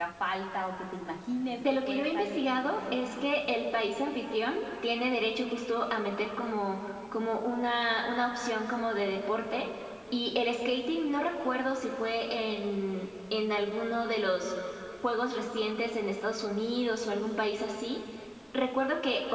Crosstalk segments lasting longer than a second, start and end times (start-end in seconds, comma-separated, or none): 1.9-3.5